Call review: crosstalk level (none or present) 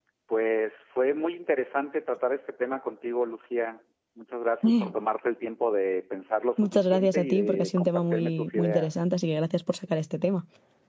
present